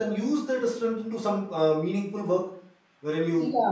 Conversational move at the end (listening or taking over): listening